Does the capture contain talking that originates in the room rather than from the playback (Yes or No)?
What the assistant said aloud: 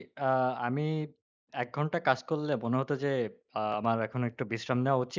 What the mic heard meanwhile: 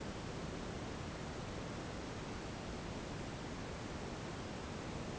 No